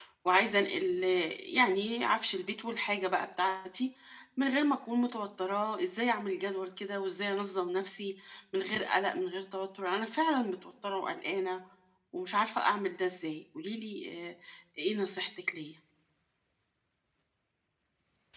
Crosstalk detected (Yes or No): No